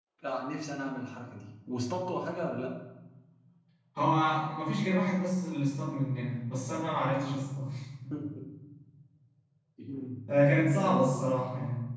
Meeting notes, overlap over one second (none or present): none